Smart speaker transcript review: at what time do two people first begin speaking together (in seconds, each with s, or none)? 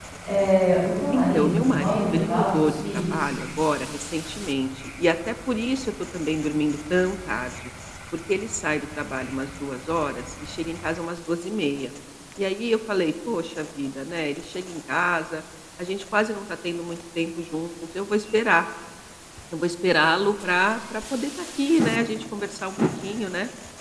1.1 s